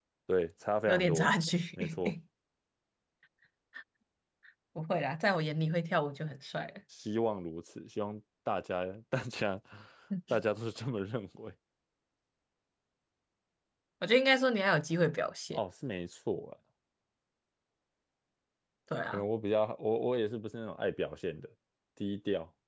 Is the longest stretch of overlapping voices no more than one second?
Yes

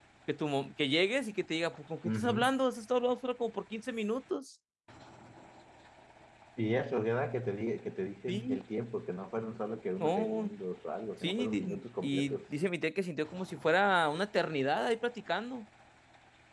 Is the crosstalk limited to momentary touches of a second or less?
No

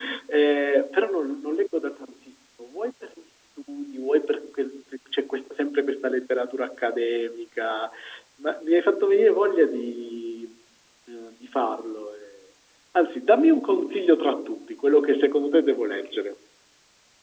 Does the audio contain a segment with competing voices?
No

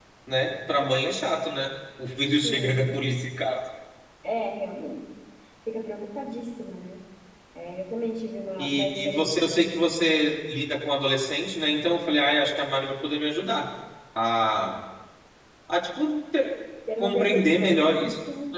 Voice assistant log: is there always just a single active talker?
No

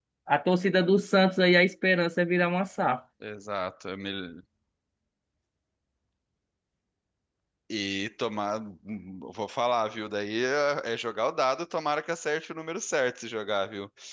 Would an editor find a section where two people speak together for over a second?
No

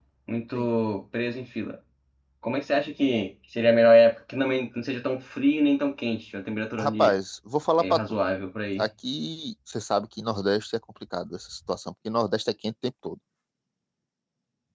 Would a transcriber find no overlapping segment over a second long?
Yes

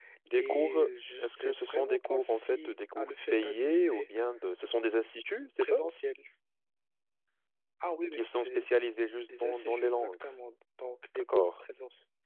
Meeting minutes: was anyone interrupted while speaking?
Yes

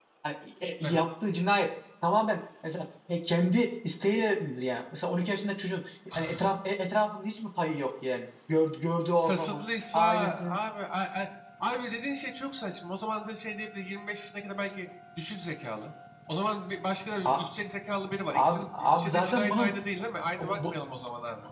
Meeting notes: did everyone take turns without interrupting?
No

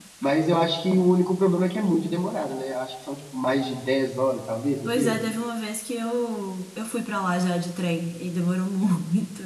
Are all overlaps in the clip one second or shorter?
Yes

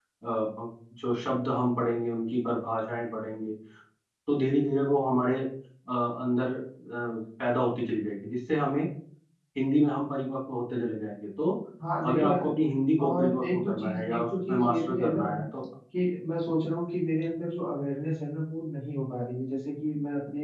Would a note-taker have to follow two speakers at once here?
Yes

